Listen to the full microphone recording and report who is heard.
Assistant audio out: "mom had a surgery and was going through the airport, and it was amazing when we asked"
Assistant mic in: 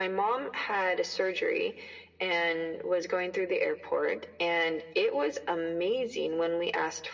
echo only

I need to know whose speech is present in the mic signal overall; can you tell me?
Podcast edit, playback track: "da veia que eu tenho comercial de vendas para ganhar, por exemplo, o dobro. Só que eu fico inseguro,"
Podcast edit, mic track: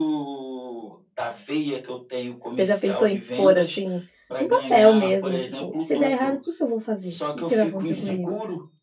both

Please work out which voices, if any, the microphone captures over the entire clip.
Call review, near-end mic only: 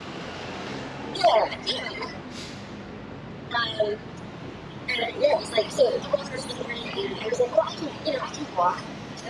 echo only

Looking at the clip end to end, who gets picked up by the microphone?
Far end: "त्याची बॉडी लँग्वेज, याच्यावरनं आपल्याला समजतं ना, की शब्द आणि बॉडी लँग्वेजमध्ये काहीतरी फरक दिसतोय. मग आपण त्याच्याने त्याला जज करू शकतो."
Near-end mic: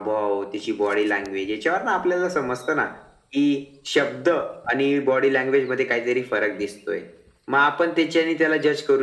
echo only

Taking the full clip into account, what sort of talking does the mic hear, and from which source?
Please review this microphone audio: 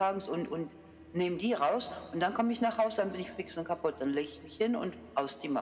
echo only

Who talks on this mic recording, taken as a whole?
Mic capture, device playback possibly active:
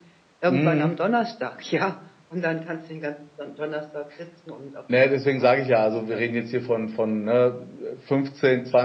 echo only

